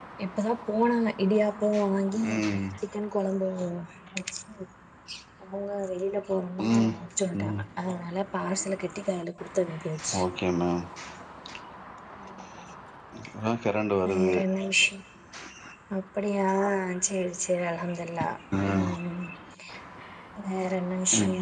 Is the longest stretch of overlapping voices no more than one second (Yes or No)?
Yes